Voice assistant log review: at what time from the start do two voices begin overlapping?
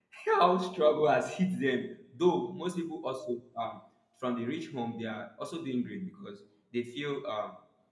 none

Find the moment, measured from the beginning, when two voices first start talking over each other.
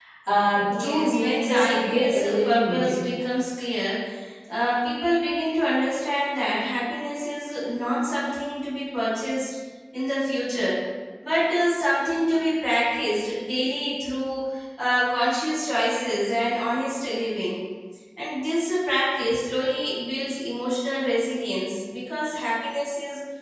1 s

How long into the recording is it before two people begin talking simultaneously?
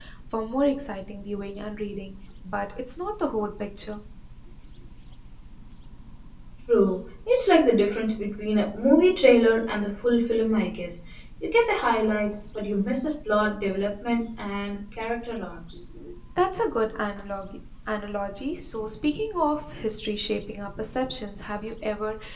none

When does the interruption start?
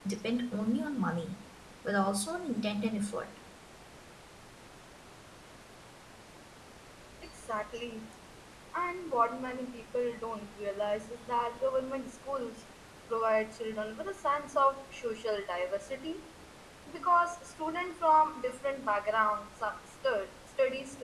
none

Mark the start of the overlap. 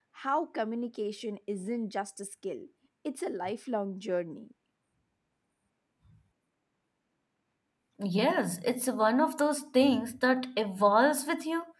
none

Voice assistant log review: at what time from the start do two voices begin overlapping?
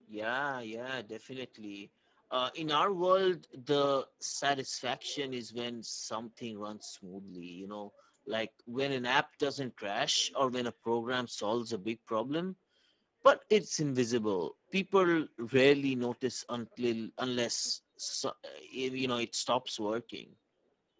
none

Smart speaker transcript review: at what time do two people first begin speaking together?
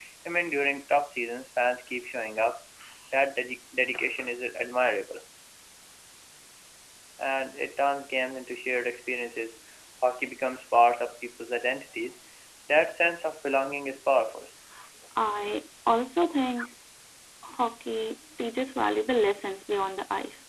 none

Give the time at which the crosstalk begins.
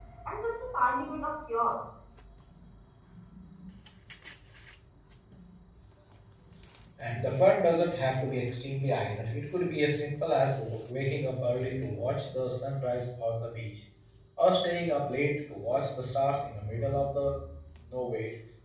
none

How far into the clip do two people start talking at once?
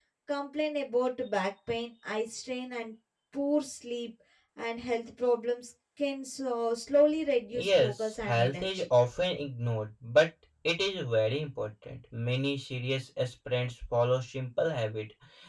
8 s

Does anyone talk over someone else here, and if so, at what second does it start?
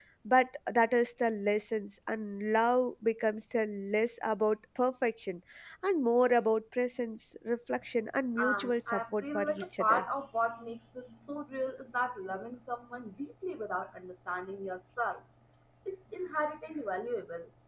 8 s

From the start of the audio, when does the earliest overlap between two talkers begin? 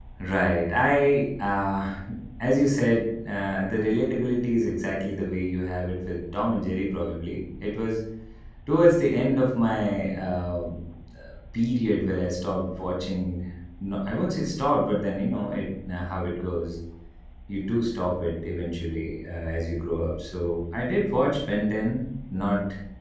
none

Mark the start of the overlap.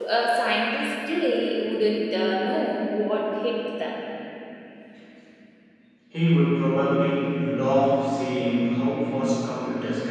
none

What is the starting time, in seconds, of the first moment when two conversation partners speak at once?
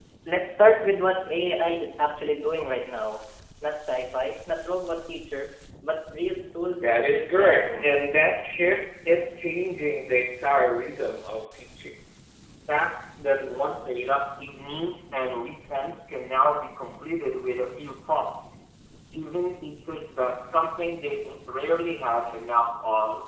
7 s

